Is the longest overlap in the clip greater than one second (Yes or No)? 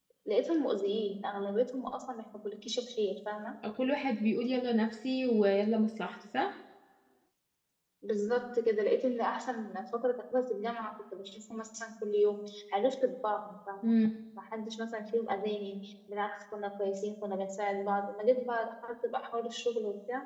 No